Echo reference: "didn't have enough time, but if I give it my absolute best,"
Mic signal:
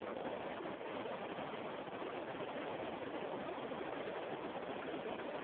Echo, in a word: none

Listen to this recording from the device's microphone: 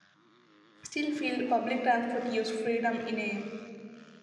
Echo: none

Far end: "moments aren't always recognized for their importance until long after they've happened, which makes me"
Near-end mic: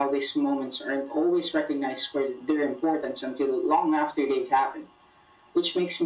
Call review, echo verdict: present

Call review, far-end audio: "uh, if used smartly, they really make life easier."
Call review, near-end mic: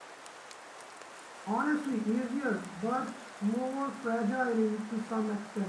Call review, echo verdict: none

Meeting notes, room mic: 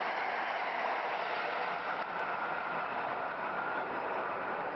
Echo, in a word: none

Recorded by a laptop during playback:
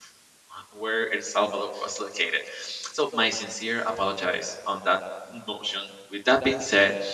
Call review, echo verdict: none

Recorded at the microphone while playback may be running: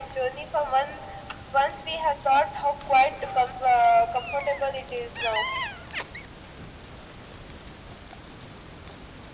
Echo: present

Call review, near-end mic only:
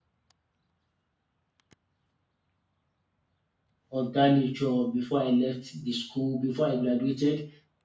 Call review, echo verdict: none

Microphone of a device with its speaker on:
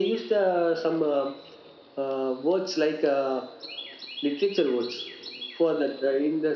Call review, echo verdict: present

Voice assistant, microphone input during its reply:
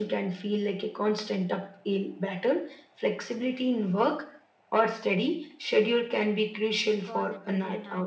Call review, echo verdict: present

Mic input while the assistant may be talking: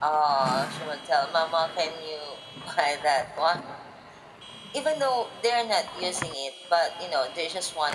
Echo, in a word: present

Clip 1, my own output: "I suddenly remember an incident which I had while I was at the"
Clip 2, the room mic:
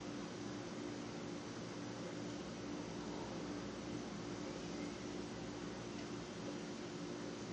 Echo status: none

